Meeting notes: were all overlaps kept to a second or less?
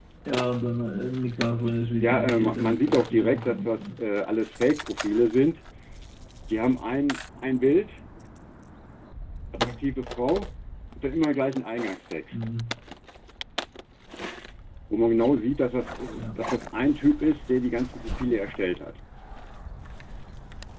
No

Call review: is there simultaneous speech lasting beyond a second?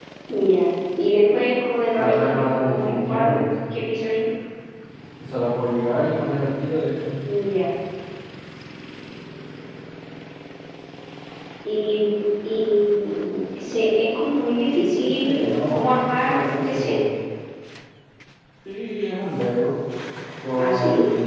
Yes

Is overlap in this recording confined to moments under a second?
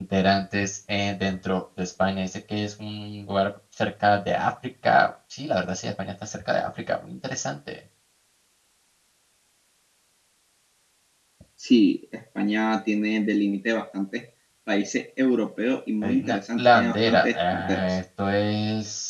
No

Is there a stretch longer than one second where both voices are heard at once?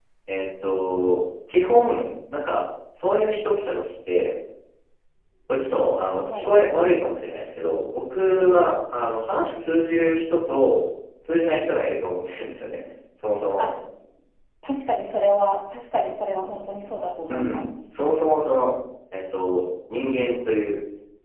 No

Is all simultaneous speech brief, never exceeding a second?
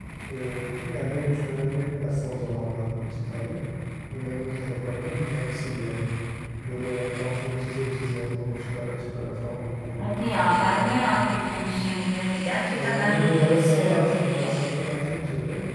No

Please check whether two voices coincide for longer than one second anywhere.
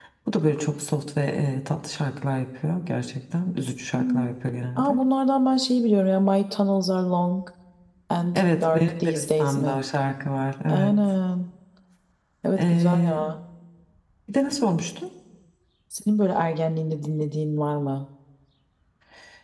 Yes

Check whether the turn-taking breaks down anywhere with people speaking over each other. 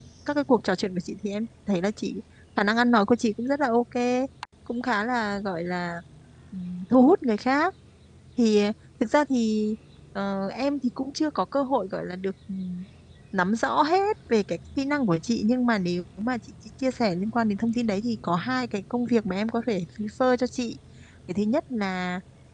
No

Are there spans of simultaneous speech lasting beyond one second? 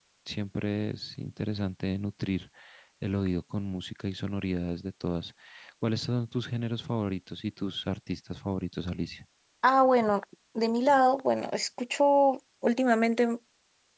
No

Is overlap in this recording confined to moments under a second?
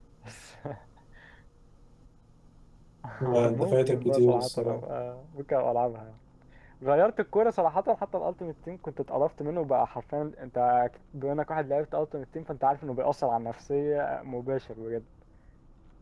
No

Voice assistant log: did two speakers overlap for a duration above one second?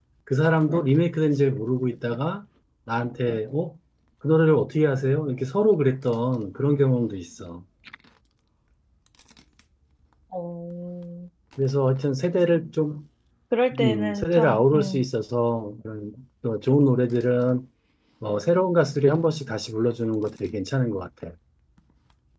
Yes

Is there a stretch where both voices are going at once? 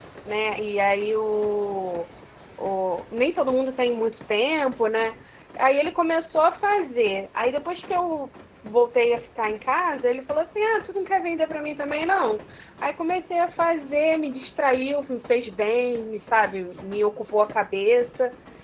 No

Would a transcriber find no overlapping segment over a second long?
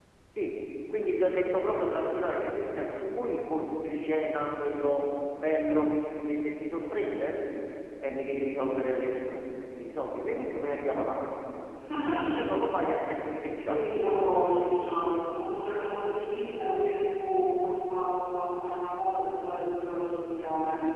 Yes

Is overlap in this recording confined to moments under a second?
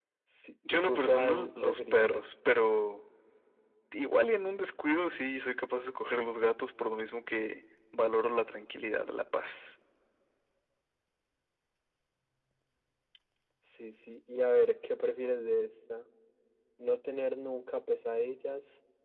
No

